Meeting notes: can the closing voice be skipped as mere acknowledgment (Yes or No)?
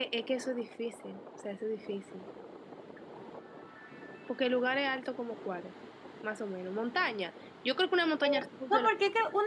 No